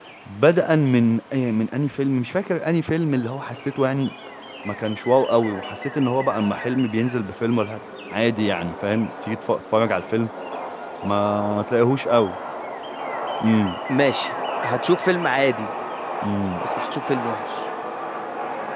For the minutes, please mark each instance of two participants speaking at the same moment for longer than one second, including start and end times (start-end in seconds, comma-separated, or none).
none